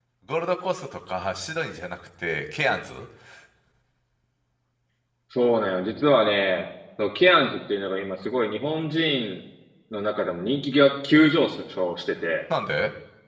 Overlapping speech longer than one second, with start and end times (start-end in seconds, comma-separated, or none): none